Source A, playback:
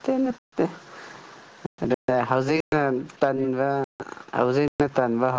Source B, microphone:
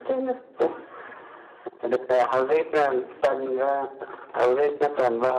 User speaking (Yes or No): No